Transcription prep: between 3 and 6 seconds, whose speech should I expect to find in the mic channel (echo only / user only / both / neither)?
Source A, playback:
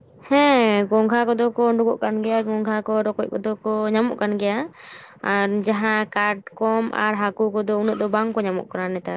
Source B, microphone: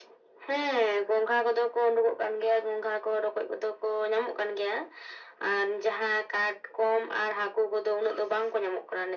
echo only